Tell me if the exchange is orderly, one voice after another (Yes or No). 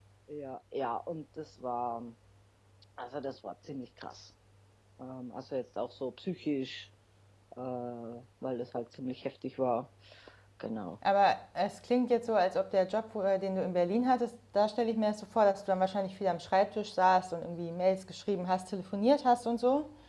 Yes